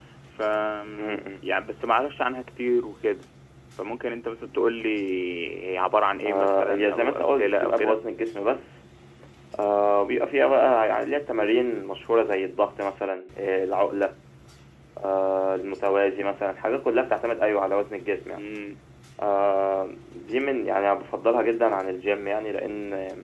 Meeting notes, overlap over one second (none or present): present